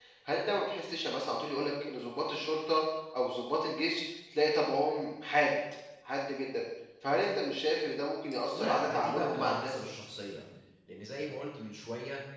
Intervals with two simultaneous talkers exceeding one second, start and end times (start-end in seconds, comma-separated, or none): 8.5-9.7